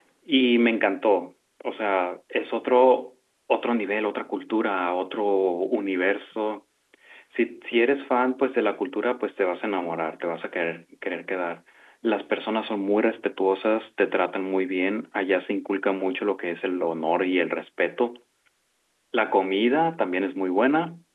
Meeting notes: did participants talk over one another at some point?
No

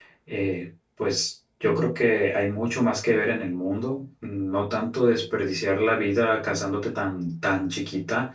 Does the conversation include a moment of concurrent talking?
No

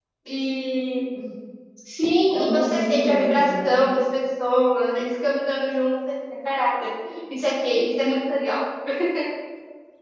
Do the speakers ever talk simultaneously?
Yes, from 2.3 s

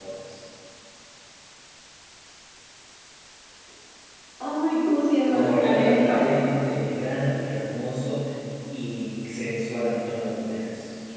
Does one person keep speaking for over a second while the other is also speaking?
Yes, from 5.3 s

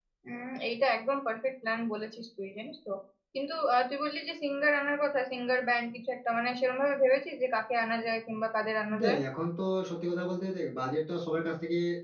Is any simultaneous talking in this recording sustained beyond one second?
No

